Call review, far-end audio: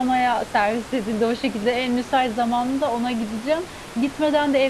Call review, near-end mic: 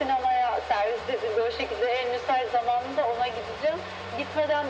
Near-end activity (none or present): none